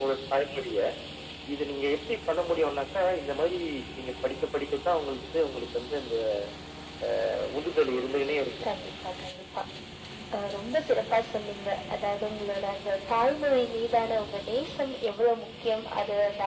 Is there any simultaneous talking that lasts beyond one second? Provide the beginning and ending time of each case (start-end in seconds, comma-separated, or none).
none